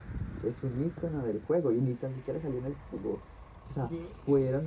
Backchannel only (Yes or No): Yes